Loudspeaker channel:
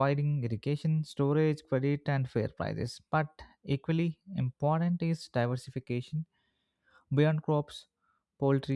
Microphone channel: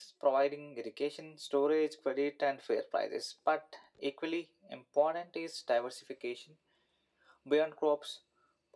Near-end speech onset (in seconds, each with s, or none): none